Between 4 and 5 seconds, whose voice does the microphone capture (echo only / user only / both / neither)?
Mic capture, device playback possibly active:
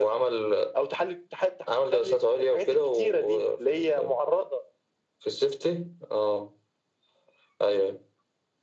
echo only